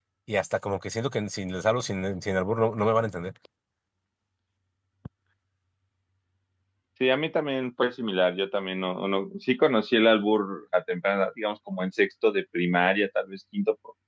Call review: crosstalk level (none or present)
none